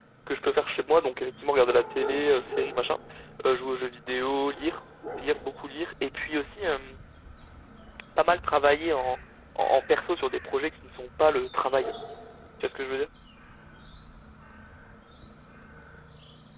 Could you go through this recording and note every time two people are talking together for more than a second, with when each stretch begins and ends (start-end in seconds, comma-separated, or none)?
none